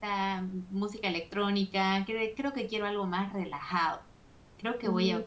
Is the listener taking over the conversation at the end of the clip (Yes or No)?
No